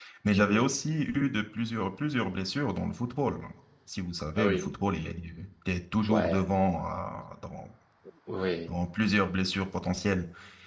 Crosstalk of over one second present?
No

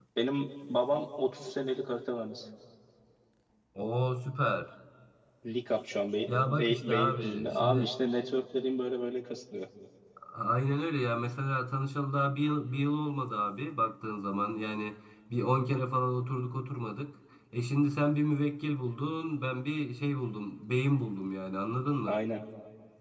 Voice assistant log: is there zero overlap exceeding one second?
No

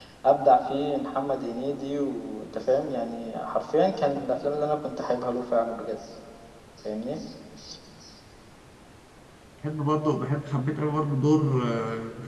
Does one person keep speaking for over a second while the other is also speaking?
No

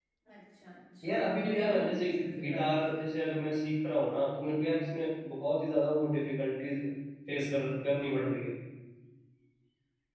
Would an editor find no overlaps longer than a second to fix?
No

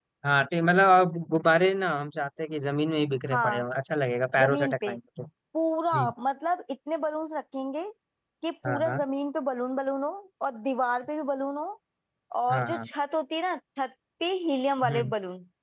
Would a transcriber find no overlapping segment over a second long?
Yes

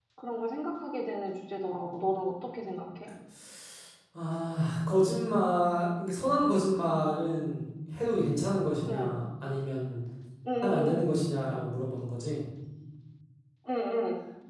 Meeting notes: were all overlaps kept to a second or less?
Yes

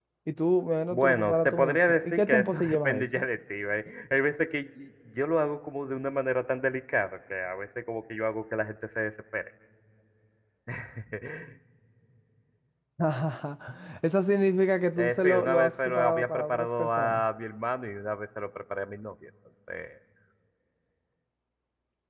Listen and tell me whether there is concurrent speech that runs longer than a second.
Yes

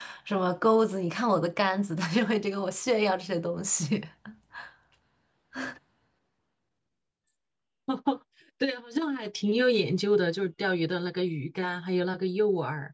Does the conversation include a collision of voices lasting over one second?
No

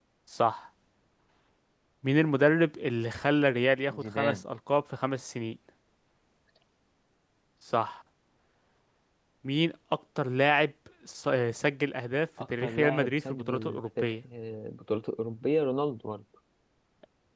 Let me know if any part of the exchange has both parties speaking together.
Yes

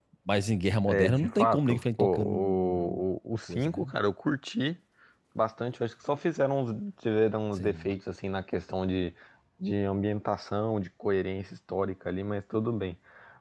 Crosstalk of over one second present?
Yes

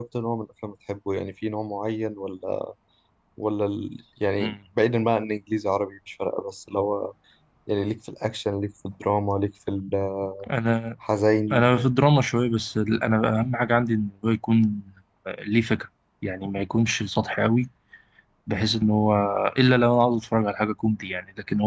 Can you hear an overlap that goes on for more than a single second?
No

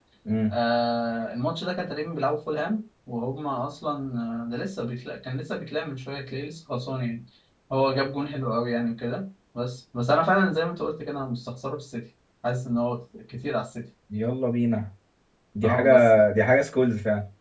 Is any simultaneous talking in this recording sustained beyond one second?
No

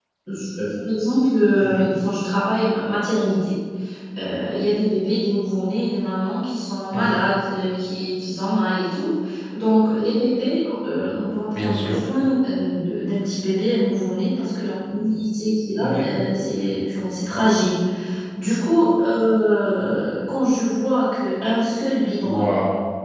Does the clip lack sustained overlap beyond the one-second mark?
Yes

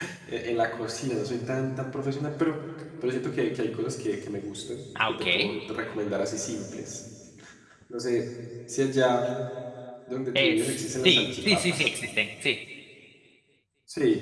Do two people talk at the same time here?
Yes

